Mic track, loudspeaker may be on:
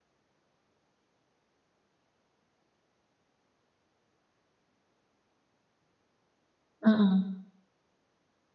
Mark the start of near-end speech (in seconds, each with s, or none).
6.8 s